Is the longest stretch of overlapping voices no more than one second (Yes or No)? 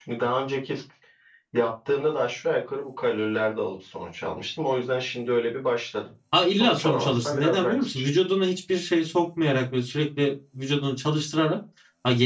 No